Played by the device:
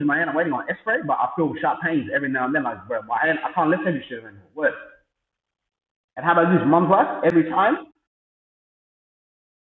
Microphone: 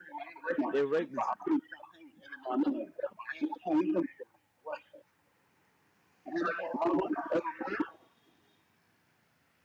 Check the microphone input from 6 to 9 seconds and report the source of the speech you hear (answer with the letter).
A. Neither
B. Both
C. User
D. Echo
D